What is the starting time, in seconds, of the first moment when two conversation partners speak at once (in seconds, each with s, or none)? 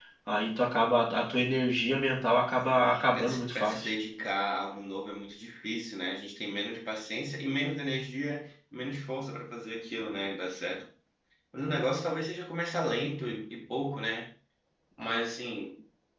2.7 s